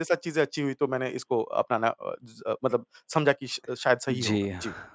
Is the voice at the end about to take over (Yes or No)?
Yes